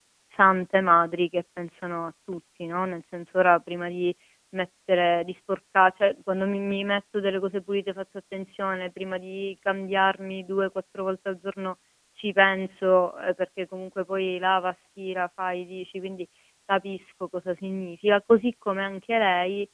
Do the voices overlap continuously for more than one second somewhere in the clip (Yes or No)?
No